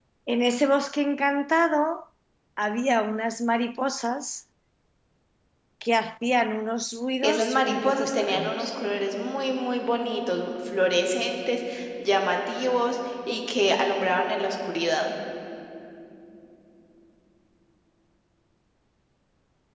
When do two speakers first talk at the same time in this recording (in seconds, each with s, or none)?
7.2 s